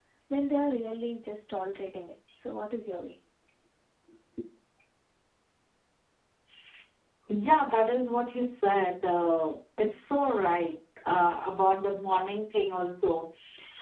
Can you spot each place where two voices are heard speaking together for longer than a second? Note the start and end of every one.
none

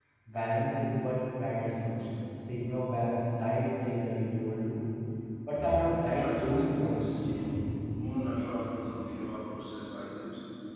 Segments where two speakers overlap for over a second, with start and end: 6.0-7.5

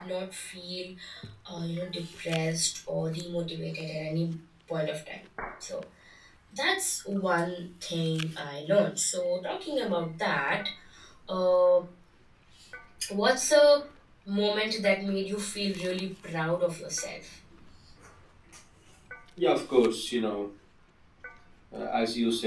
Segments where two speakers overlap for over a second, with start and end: none

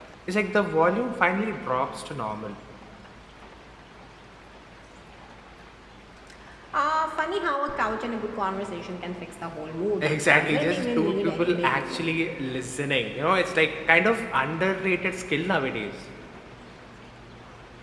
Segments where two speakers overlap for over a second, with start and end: 10.0-12.1

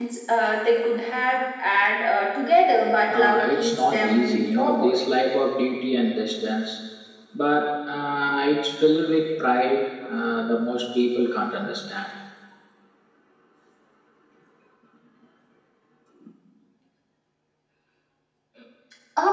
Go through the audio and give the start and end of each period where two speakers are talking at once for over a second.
3.1-5.0

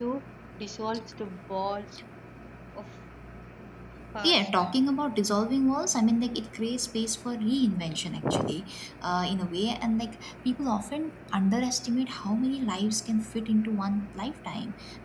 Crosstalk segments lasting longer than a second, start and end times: none

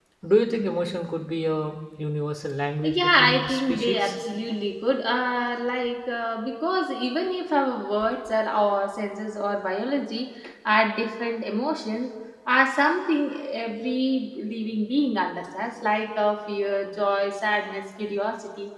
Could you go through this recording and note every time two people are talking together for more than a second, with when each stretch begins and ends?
2.8-4.1

